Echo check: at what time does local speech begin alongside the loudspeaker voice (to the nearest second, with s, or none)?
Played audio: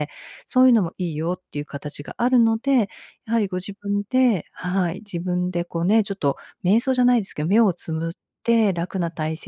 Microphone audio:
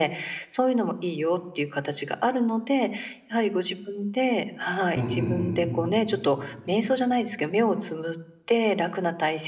5 s